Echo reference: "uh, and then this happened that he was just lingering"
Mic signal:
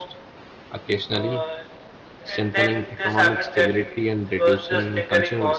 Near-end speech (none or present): present